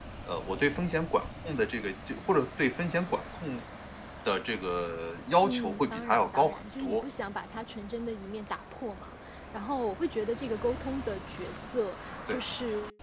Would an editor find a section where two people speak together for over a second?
Yes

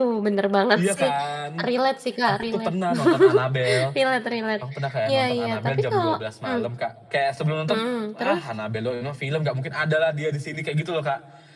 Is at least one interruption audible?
Yes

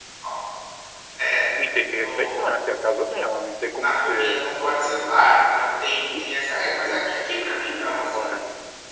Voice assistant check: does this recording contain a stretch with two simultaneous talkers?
Yes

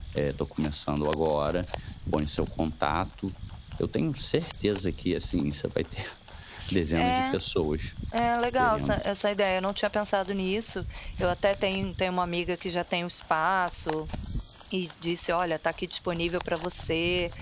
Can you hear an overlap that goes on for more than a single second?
No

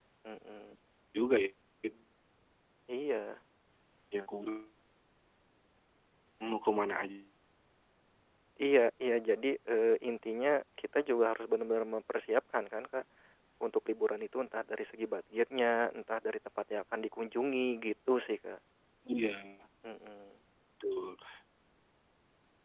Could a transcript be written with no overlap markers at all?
Yes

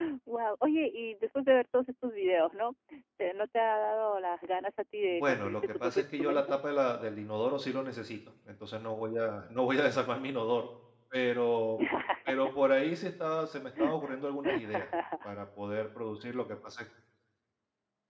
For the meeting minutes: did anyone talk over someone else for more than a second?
Yes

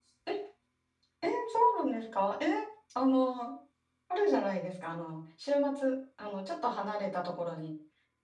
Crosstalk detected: No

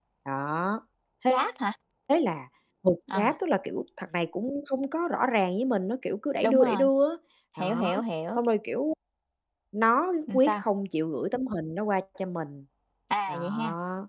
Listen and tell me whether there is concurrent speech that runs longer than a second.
No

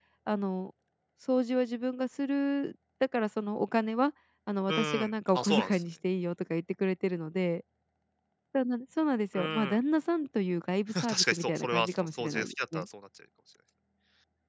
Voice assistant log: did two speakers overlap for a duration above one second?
Yes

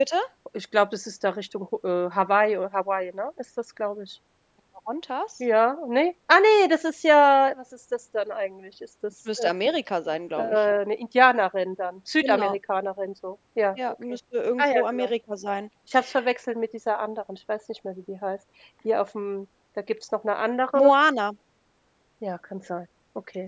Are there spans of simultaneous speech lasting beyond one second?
No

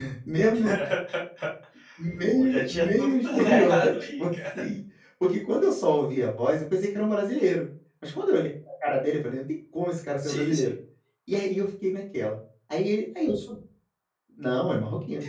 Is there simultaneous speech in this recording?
Yes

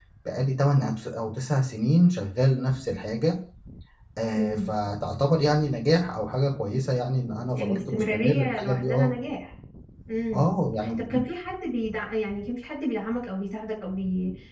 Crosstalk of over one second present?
Yes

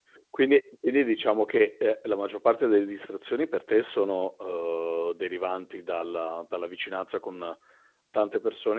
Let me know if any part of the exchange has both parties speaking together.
No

